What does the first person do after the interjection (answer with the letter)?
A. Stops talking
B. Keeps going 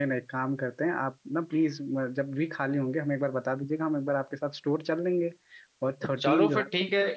A